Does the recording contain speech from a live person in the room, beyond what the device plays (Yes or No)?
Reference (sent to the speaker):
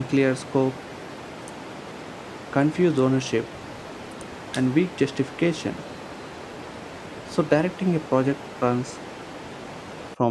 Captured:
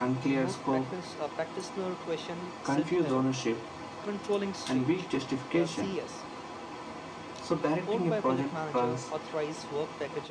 Yes